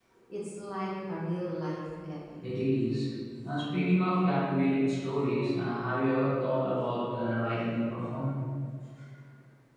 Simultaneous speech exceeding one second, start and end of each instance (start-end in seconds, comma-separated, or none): none